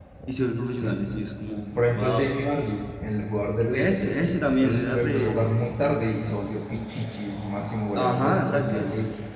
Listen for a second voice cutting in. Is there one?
Yes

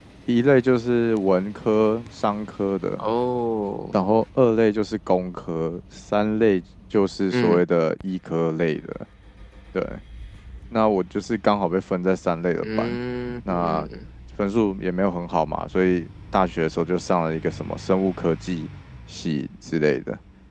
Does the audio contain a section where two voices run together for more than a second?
No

